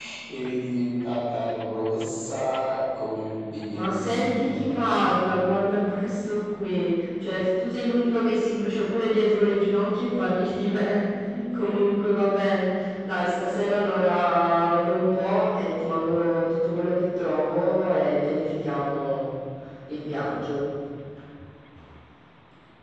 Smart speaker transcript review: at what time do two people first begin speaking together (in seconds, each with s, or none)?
3.7 s